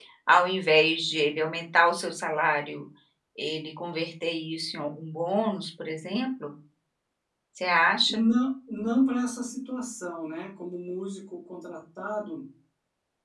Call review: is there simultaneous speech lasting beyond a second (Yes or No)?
No